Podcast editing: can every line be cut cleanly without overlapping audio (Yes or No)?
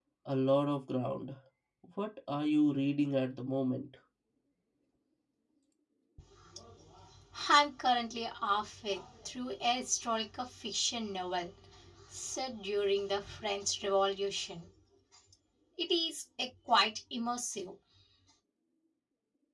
Yes